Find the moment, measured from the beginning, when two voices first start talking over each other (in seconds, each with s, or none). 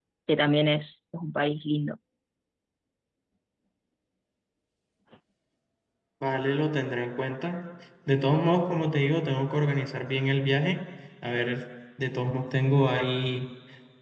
none